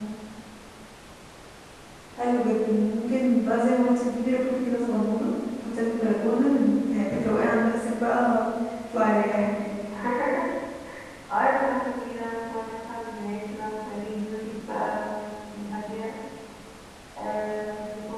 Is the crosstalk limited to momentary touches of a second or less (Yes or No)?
Yes